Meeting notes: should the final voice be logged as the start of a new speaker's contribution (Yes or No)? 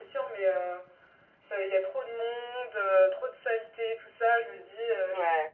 No